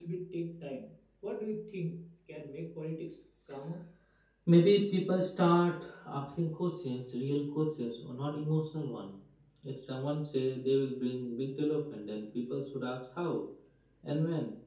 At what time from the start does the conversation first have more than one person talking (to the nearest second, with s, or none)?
none